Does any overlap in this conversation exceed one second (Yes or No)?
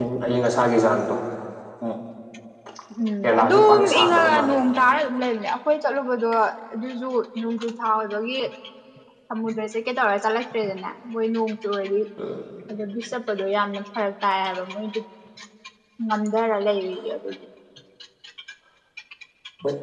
Yes